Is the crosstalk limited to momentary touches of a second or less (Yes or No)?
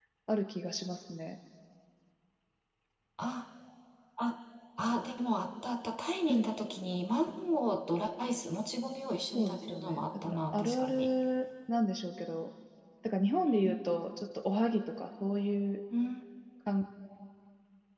No